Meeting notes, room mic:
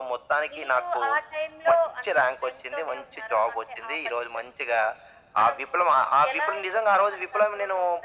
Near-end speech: none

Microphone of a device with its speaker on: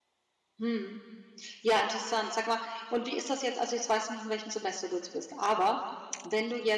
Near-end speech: present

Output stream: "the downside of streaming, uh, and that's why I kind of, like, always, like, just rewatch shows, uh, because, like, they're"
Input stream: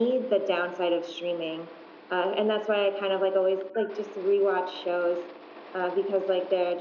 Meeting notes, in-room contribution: none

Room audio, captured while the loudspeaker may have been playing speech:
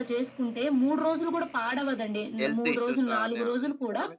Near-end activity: present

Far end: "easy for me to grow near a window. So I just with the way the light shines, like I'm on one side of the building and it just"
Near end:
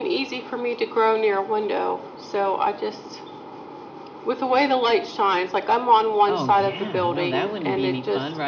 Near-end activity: present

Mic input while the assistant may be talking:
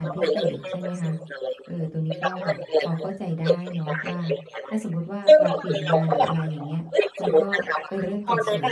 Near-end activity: present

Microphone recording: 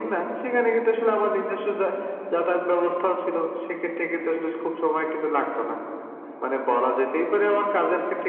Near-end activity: none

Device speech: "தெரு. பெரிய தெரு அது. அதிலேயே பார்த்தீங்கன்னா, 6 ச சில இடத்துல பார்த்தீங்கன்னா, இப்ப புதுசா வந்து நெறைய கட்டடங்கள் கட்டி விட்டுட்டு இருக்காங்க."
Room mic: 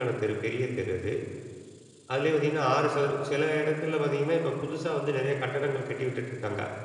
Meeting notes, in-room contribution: none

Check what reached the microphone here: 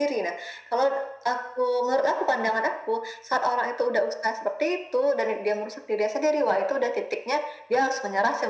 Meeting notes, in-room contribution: none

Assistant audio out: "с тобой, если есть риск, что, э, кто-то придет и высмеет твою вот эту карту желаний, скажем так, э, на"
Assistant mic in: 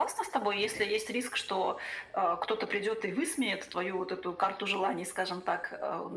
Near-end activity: none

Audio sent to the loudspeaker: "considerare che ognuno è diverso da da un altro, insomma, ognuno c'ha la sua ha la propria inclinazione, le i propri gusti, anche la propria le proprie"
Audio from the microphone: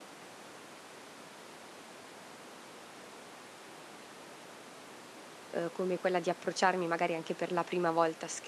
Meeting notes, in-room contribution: present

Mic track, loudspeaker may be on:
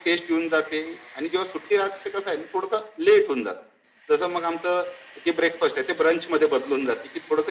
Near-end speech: none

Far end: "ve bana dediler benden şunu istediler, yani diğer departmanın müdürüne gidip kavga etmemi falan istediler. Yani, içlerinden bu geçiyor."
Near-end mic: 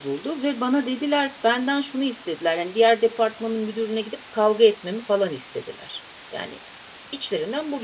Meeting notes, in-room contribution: none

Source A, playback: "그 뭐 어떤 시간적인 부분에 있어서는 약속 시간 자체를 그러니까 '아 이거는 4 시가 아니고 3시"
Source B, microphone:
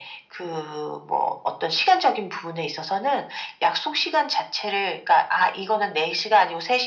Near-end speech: none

